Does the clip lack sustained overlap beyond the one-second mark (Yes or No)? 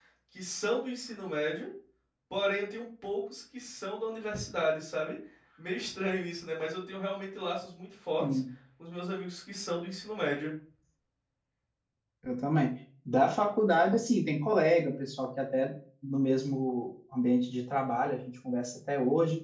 Yes